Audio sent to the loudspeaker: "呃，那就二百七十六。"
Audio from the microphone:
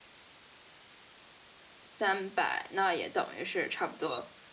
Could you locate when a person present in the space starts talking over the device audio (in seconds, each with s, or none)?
1.8 s